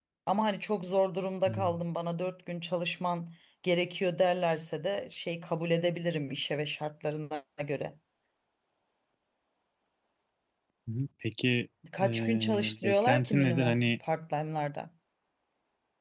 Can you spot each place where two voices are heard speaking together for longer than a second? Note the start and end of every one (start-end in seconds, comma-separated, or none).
12.0-13.9